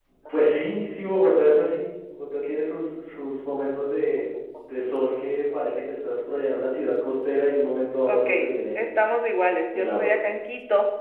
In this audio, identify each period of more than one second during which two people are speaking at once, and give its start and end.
none

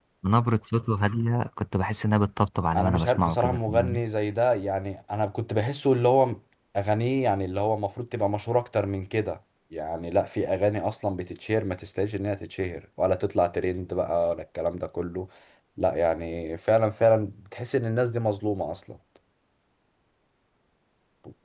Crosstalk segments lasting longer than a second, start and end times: 2.8-4.0

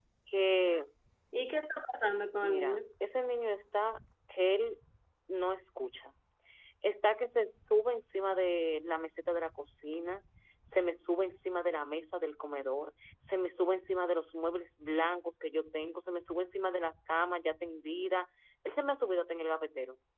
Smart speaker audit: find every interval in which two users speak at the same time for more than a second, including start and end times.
none

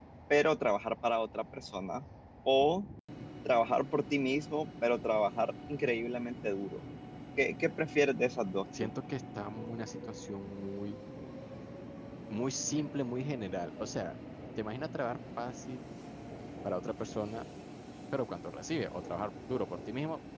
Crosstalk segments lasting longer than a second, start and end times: none

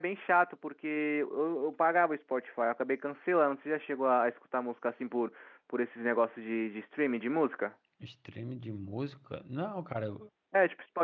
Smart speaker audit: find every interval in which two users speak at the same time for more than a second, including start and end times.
none

